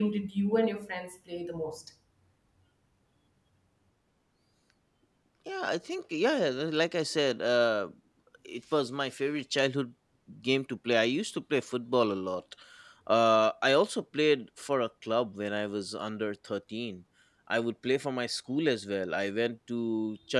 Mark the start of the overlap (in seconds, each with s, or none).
none